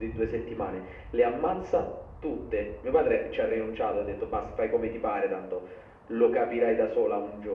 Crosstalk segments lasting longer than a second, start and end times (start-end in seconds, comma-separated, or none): none